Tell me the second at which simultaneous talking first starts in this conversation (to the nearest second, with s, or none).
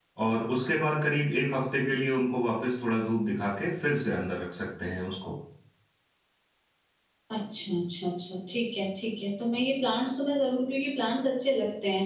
none